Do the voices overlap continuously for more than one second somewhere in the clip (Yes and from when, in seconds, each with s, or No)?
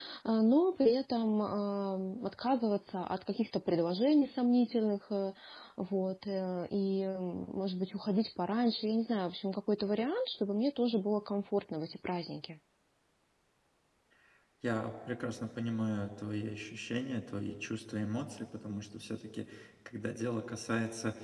No